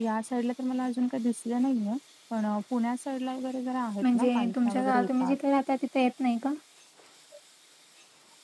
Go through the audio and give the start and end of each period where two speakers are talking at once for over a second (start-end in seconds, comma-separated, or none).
4.0-5.3